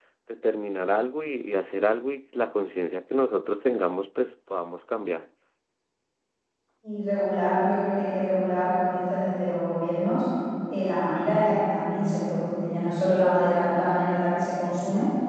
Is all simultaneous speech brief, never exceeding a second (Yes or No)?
Yes